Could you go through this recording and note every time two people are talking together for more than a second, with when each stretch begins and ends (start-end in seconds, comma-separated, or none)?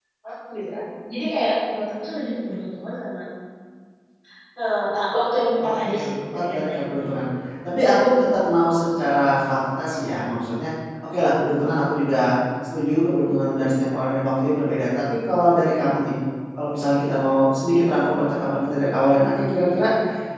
5.6-7.1